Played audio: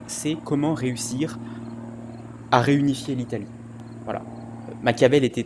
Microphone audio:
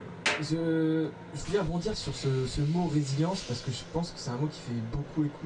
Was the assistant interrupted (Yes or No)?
Yes